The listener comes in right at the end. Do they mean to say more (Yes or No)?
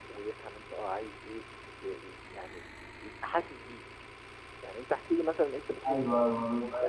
Yes